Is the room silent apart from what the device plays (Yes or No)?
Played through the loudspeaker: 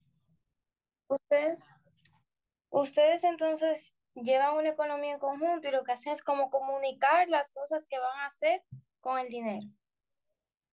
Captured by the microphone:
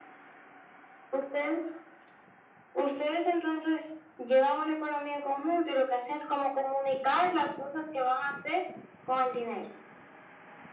Yes